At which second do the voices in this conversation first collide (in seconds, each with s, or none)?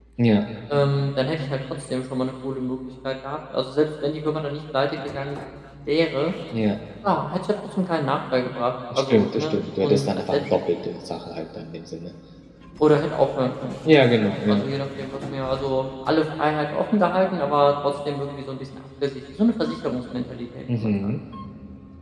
8.9 s